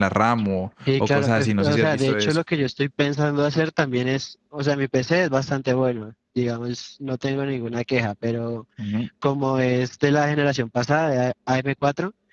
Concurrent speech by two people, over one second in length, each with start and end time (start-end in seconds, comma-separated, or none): 1.0-2.4